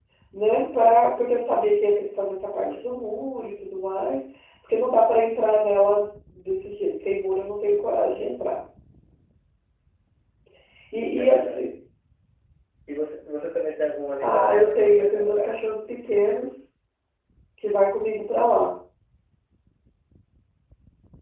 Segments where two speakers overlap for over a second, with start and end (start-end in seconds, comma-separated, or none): 14.2-15.5